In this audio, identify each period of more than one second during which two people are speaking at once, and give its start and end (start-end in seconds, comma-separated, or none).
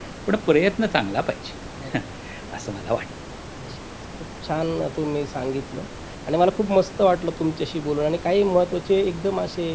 none